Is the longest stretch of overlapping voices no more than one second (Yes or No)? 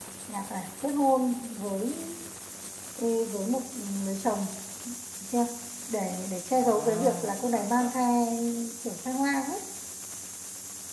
No